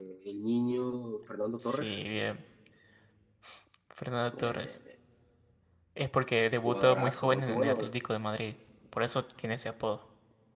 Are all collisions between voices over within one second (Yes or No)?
No